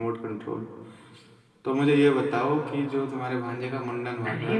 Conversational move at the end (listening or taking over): taking over